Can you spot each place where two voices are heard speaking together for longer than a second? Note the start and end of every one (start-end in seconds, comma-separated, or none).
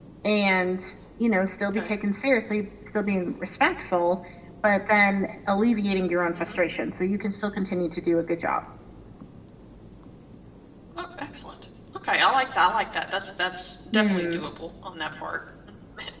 none